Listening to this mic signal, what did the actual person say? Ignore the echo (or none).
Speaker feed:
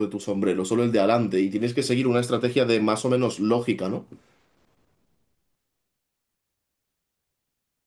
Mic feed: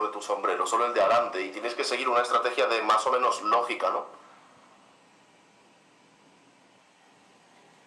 none